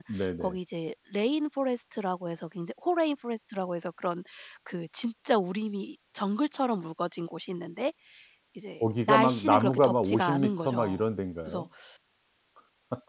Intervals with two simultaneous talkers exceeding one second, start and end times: 8.8-11.0

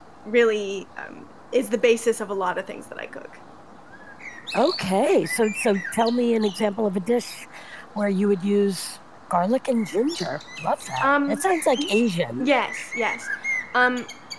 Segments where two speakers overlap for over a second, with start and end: none

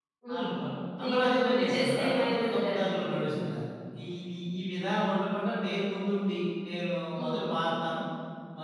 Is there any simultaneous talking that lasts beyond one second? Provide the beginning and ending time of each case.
1.0-3.3

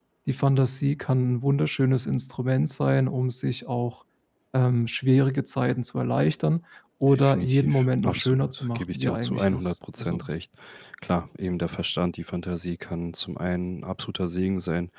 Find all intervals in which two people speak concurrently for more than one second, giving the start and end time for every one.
7.1-10.2

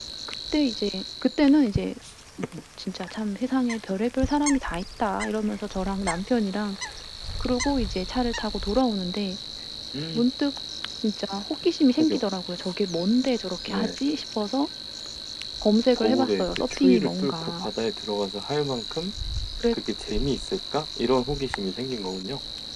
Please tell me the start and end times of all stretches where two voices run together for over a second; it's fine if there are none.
15.9-17.7

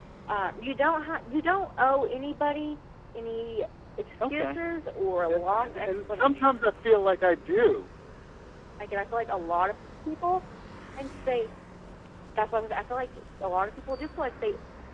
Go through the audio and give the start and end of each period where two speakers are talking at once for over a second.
5.3-6.5

